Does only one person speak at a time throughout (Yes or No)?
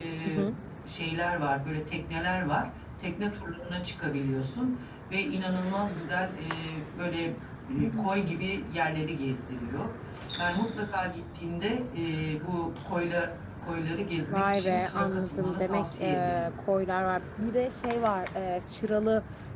No